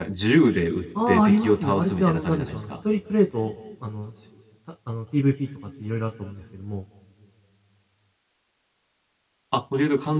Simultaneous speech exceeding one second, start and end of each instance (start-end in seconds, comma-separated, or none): 1.1-2.7